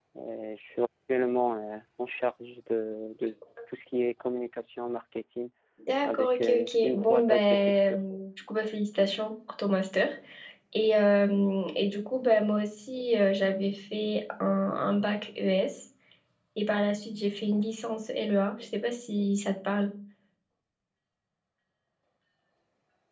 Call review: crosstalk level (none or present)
present